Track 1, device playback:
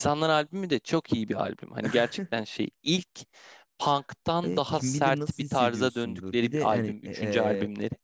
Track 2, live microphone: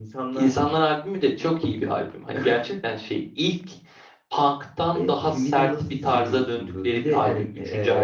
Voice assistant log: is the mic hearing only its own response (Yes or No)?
Yes